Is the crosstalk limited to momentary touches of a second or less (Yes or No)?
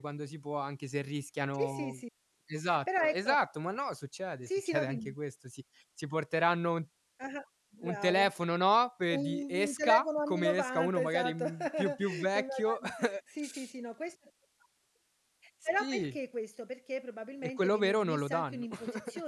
No